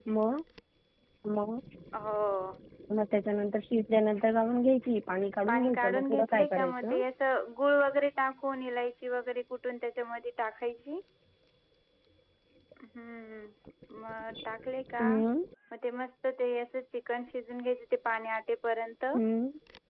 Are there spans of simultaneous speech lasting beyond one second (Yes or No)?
Yes